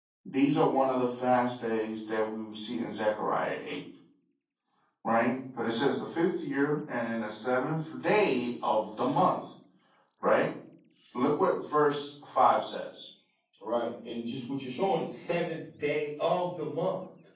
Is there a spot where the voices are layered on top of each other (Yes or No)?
No